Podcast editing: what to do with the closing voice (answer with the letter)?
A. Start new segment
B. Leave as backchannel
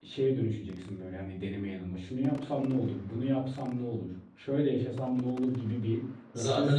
B